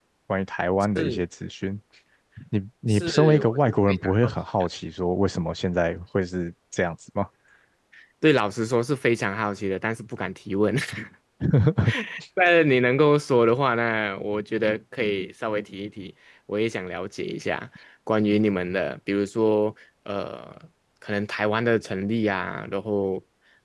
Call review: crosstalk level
present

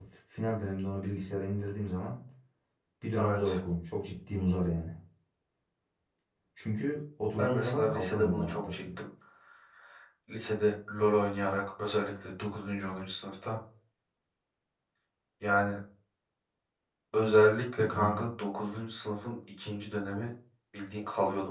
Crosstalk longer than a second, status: present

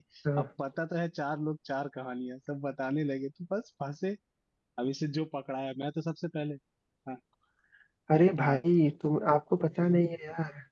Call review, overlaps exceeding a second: none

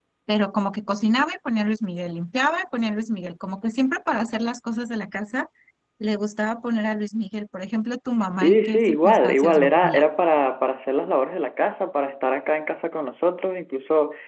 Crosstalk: present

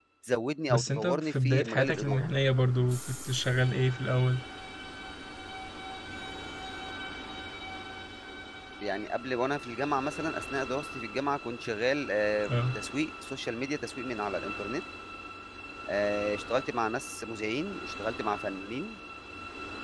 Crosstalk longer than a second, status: present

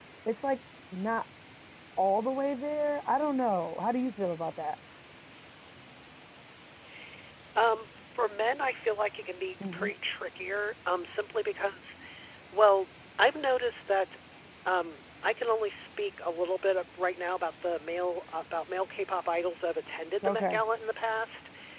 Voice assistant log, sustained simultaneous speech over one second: none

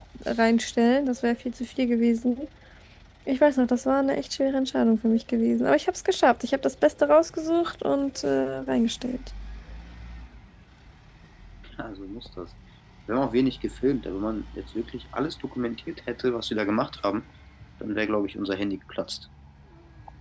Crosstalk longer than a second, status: none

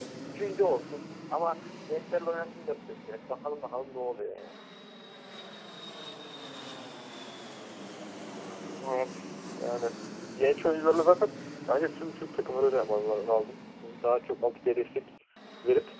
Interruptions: none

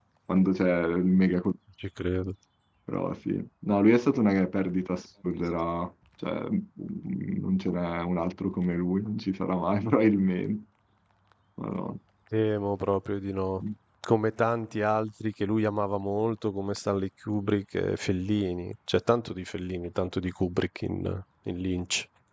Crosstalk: none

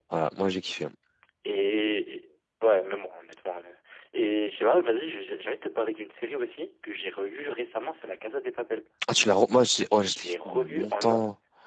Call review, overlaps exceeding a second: present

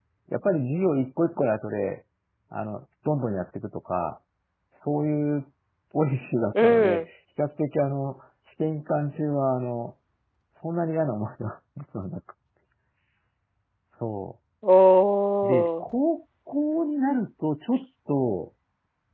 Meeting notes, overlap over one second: none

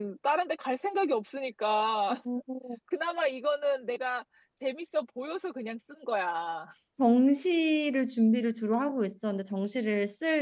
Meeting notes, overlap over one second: none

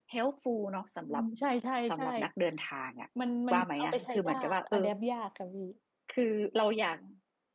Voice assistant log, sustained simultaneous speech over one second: present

